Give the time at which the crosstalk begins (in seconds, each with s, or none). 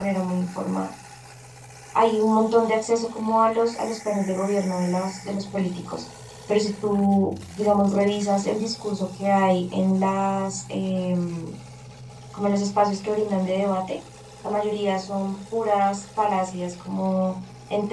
none